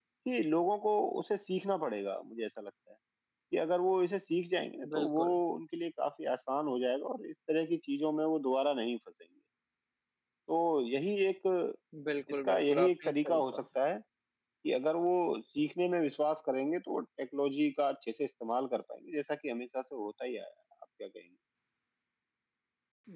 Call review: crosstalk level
present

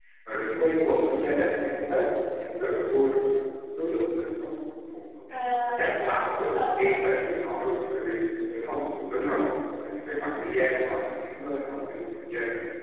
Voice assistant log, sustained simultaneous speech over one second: present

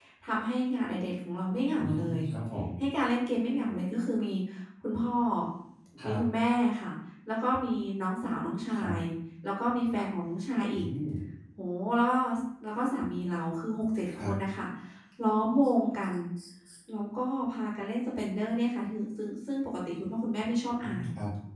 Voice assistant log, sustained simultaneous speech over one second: none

